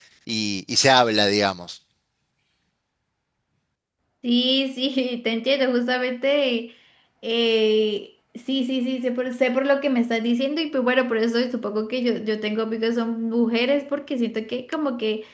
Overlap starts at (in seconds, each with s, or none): none